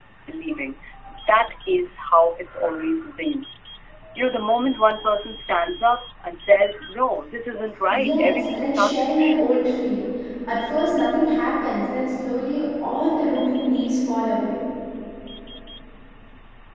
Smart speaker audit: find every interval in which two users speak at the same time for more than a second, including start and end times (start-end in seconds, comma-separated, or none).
7.9-9.5